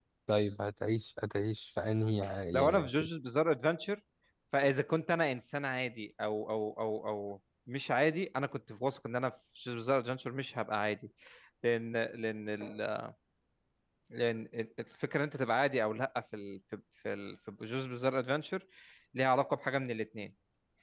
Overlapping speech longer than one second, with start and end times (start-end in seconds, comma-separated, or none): none